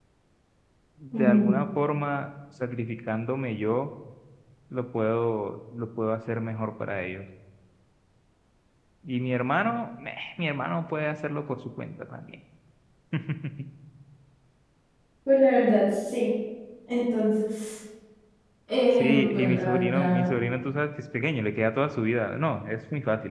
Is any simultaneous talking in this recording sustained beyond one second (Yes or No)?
Yes